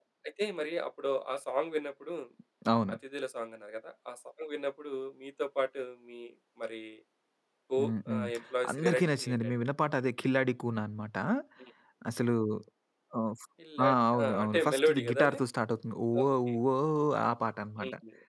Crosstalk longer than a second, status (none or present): present